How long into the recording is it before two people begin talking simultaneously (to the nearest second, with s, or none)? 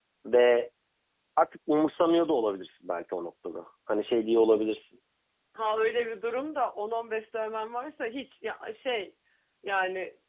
none